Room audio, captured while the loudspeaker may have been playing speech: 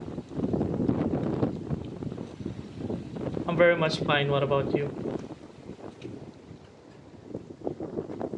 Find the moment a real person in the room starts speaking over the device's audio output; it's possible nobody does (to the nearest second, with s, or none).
3 s